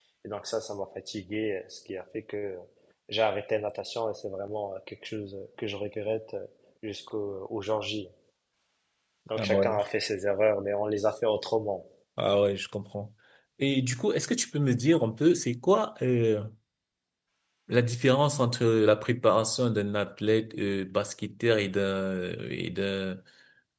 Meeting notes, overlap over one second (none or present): none